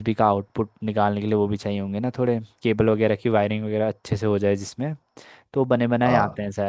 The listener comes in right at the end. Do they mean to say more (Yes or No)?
No